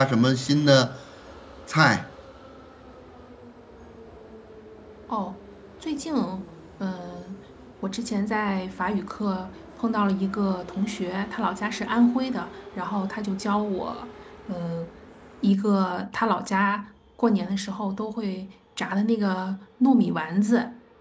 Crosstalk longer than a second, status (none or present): none